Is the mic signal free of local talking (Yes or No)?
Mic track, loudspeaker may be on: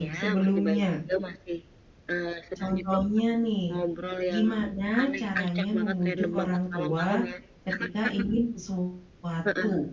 No